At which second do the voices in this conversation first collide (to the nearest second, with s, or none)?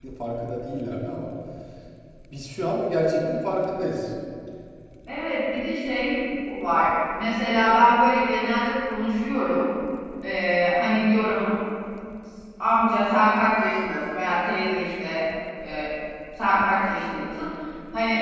none